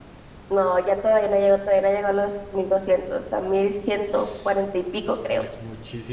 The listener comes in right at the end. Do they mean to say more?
Yes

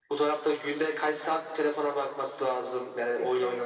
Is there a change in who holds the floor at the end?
No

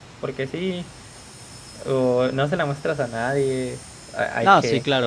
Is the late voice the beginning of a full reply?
Yes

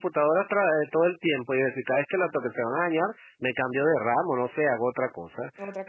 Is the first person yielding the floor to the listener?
No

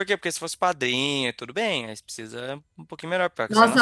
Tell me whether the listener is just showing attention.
No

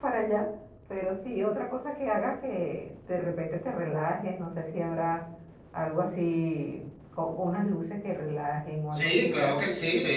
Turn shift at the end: Yes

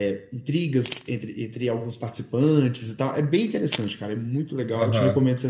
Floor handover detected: Yes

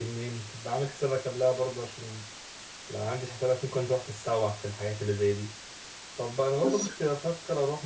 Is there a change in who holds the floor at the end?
No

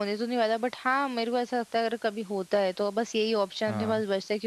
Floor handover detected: No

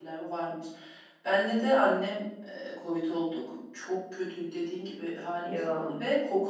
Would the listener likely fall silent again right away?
Yes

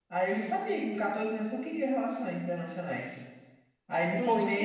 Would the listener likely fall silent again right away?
Yes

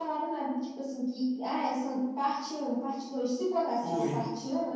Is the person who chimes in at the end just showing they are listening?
Yes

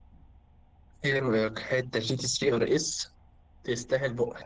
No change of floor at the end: No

